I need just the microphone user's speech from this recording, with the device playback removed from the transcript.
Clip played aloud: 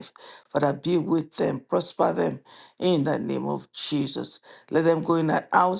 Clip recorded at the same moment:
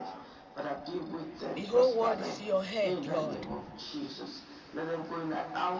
The whole world is in your hand, Lord.

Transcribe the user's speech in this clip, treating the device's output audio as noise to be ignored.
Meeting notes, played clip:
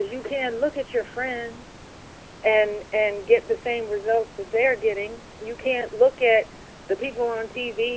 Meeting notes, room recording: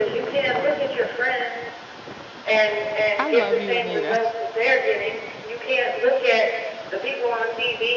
I love you, Anita.

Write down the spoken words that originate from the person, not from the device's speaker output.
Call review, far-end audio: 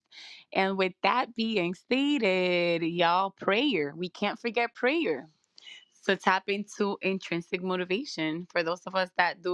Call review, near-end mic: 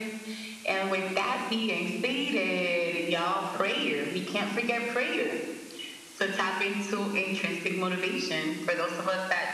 none

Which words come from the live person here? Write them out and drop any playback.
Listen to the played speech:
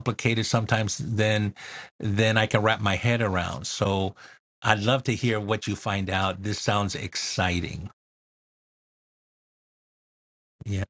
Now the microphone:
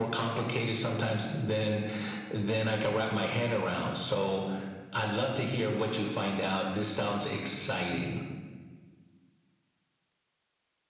none

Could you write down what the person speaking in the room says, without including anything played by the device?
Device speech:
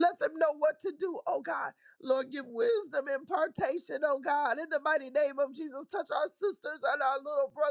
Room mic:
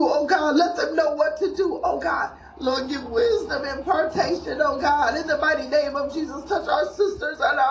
none

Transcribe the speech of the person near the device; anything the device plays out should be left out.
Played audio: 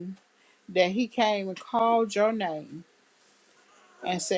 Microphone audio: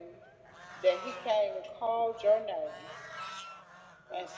none

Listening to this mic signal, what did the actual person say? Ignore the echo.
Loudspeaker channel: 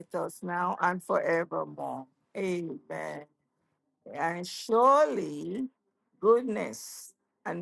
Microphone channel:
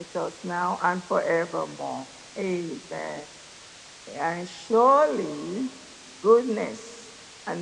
none

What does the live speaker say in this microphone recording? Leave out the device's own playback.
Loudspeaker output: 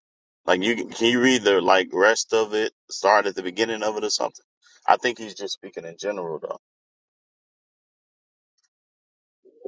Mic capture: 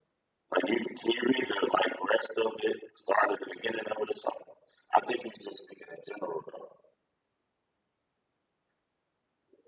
none

